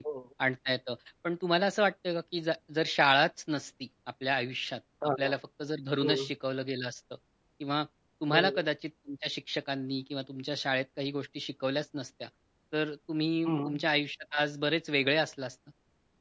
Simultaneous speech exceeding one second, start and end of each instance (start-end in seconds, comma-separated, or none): none